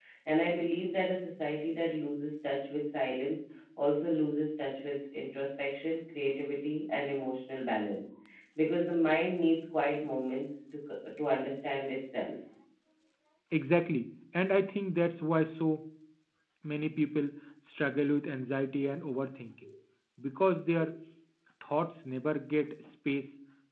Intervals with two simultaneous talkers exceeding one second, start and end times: none

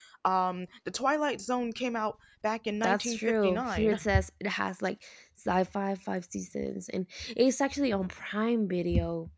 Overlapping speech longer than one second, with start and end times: 2.8-4.0

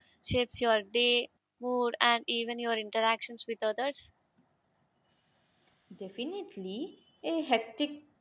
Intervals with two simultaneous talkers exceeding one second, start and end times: none

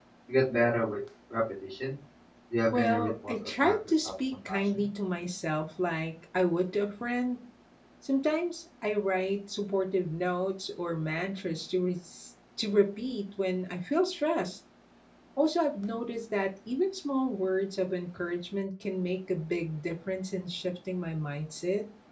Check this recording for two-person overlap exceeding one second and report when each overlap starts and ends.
2.7-4.8

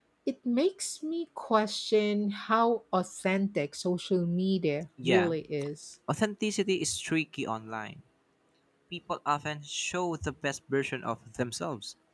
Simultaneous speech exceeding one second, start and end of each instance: none

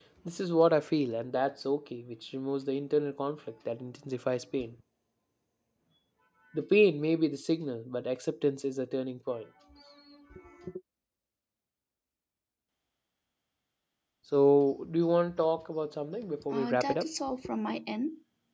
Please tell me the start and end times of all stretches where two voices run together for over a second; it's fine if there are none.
none

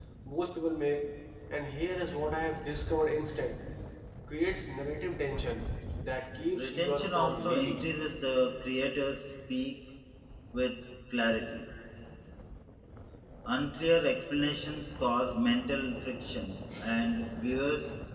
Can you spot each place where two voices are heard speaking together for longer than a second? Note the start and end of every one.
6.6-7.8

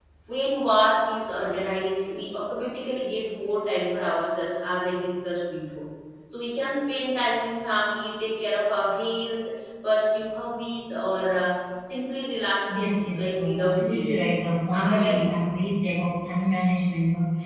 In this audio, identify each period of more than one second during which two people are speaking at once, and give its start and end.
12.7-14.2

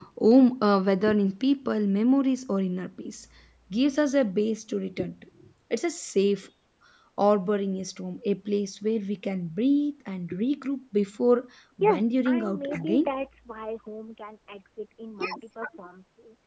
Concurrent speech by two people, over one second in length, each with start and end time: 11.8-13.1

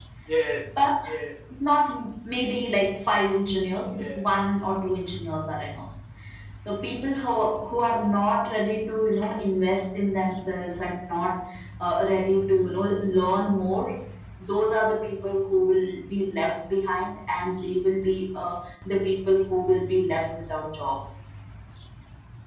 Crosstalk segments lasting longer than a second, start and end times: none

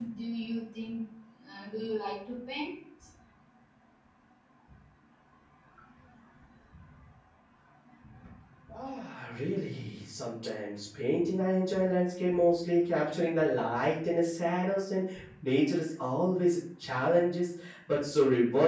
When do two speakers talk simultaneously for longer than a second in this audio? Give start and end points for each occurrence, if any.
none

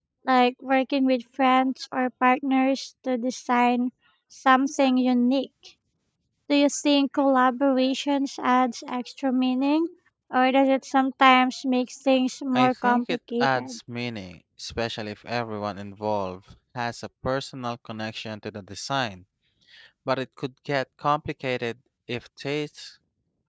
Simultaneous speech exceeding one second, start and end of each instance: 12.5-13.8

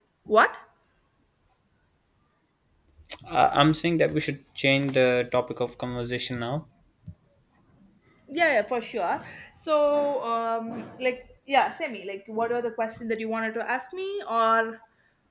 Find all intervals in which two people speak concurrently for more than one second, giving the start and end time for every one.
none

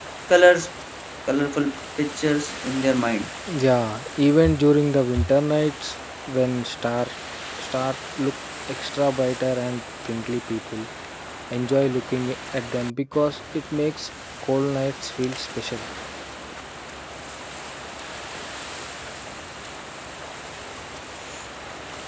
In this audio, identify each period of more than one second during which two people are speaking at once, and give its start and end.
none

